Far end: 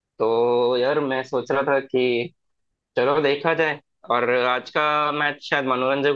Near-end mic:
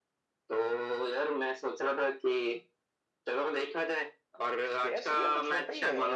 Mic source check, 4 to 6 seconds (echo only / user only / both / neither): both